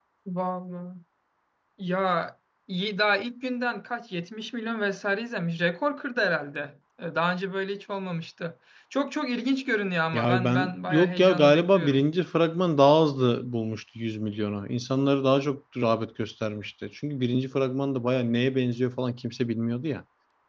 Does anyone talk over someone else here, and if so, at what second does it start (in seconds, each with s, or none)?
10.1 s